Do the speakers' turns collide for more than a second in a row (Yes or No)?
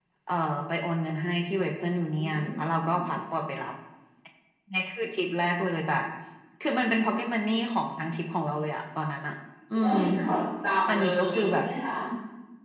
Yes